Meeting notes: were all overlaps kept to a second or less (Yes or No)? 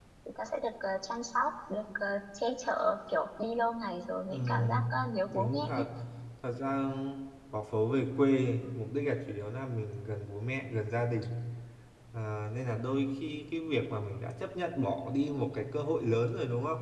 No